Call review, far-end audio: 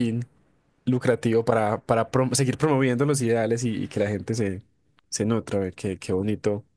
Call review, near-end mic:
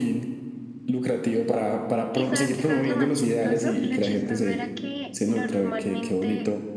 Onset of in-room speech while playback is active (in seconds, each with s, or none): 2.1 s